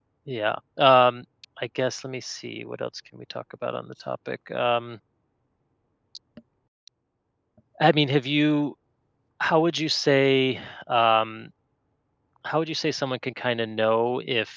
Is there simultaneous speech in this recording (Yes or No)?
No